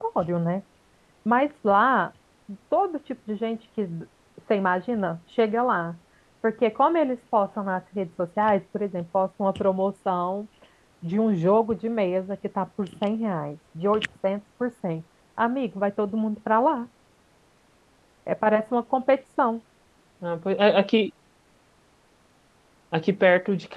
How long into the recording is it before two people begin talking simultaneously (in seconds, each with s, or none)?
none